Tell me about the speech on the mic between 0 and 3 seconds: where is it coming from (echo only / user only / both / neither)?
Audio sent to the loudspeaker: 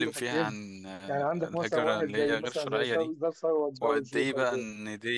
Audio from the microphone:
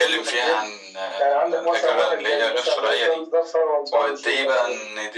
echo only